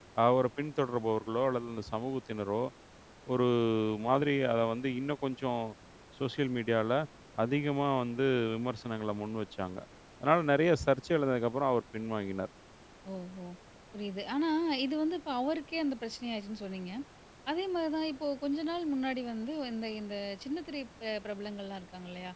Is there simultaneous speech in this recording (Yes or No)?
No